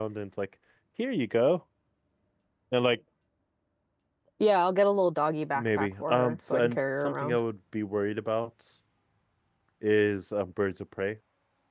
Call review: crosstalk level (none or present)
present